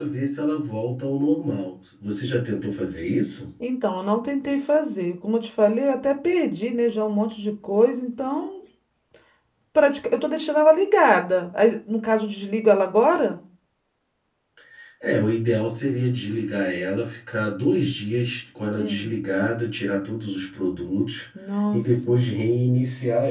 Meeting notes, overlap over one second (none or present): none